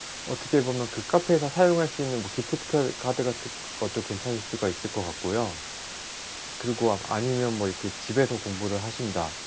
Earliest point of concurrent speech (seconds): none

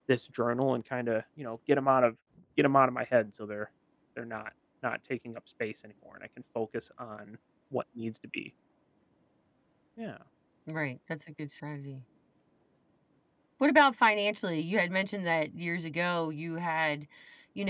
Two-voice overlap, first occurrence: none

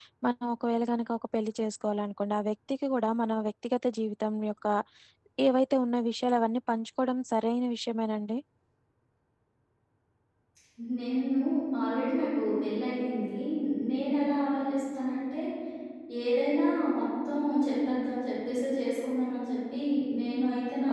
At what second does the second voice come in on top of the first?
none

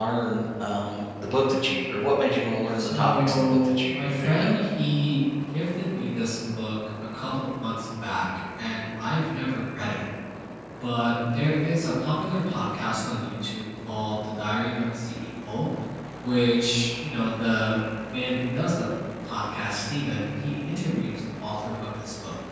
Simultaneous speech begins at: 2.8 s

